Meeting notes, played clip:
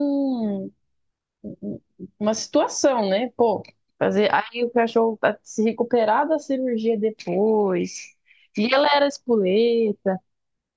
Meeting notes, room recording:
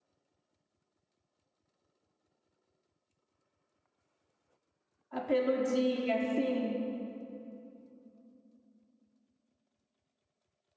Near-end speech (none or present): present